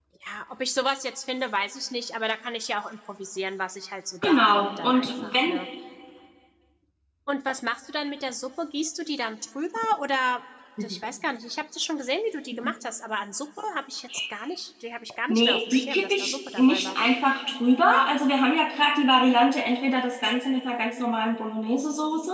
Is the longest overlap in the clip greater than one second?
Yes, from 4.2 s

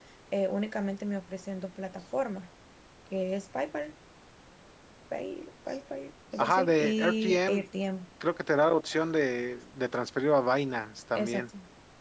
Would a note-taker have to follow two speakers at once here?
Yes, from 6.4 s

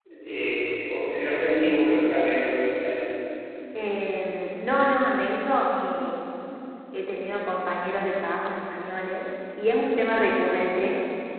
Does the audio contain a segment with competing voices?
No

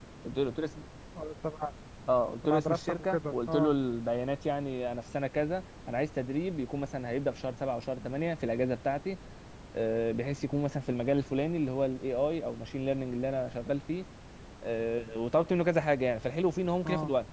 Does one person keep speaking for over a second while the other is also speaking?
Yes, from 2.4 s

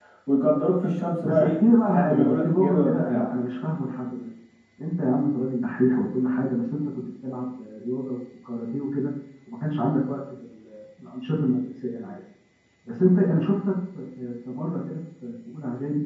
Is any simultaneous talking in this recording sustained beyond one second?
Yes, from 1.2 s

